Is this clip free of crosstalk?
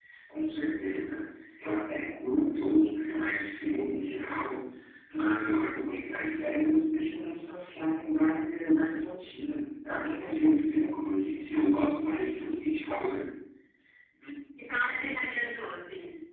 Yes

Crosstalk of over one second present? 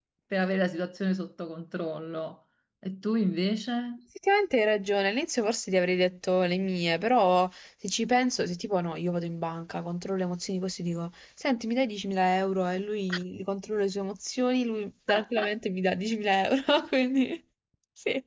No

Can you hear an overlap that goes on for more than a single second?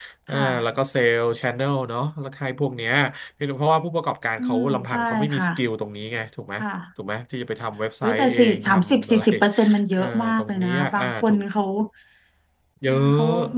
Yes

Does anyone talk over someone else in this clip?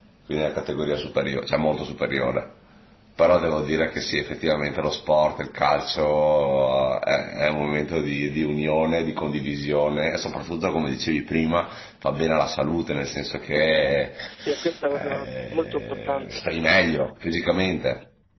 Yes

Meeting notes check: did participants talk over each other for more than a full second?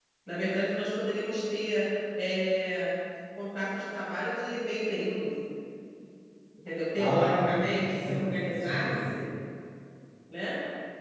Yes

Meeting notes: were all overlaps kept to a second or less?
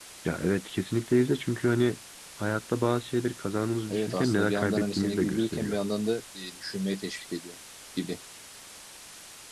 No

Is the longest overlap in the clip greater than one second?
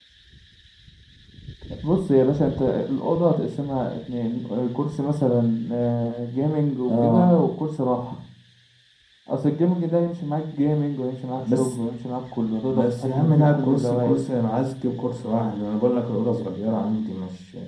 Yes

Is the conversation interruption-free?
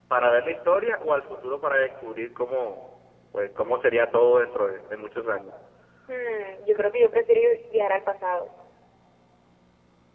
Yes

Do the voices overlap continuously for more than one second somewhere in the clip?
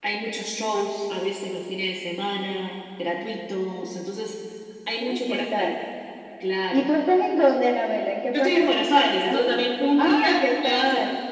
Yes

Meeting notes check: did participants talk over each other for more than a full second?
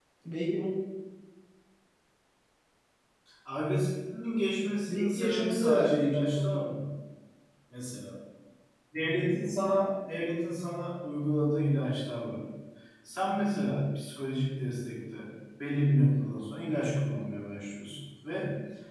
Yes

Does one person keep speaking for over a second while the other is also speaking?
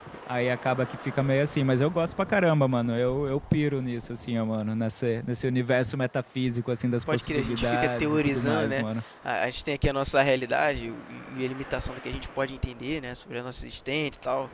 Yes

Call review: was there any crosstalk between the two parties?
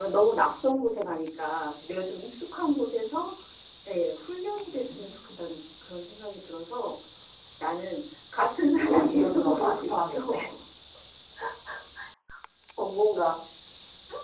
Yes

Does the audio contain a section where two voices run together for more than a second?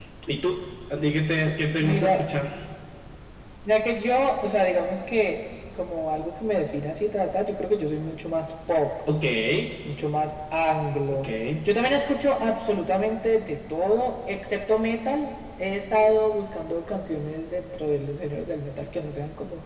No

